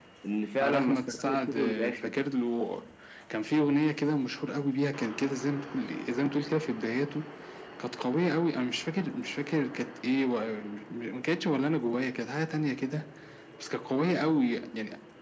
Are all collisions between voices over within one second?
No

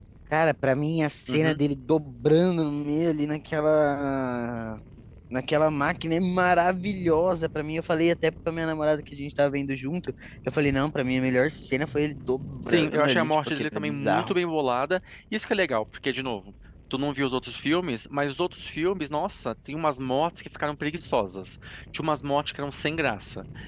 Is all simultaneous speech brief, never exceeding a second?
No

